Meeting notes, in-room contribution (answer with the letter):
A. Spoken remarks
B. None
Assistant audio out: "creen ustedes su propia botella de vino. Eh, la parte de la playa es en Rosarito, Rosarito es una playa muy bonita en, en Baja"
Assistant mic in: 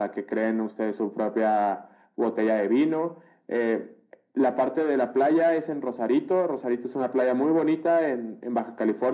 B